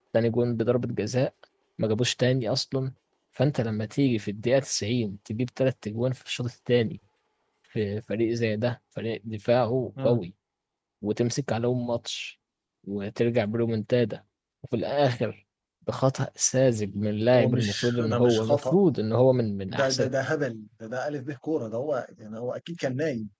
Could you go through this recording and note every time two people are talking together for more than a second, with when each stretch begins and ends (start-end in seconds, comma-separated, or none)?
17.4-18.8